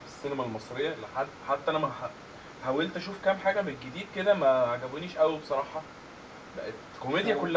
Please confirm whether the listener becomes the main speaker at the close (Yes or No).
No